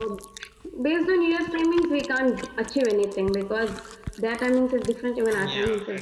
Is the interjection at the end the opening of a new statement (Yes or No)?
Yes